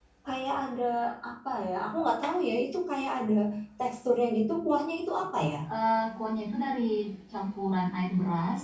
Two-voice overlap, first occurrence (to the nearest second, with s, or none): none